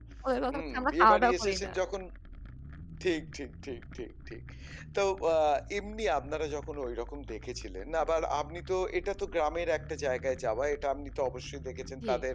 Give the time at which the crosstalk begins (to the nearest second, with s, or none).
1 s